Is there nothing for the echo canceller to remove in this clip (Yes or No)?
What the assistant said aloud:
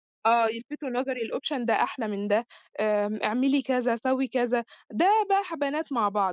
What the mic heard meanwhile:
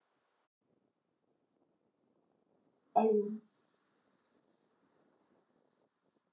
Yes